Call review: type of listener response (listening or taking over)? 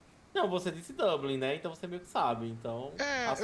taking over